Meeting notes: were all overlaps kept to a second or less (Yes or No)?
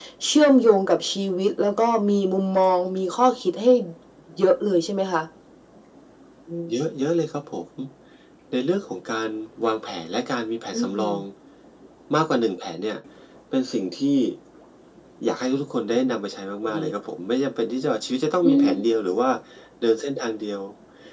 Yes